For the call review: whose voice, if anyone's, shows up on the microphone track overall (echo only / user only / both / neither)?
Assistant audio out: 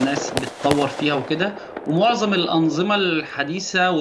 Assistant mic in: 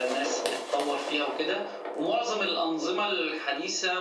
echo only